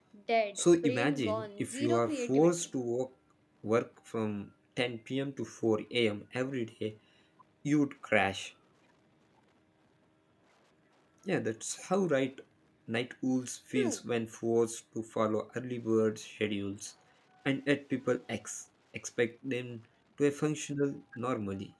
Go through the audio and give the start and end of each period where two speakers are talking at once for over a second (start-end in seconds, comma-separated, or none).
0.6-2.7